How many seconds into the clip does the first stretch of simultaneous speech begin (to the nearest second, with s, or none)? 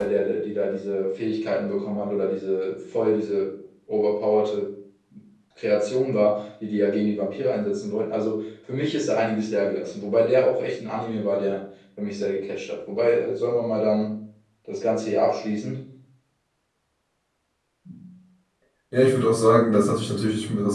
none